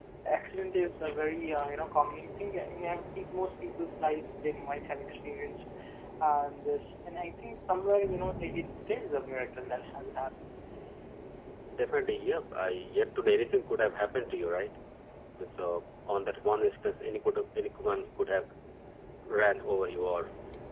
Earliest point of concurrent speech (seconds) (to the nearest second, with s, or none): none